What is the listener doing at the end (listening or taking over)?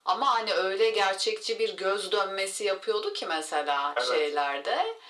listening